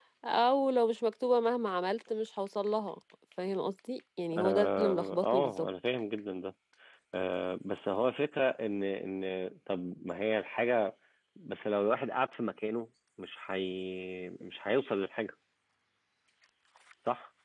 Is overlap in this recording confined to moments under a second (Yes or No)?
No